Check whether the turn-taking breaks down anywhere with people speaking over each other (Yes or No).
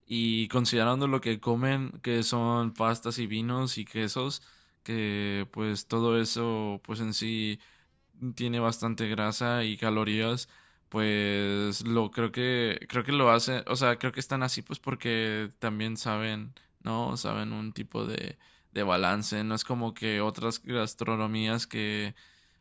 No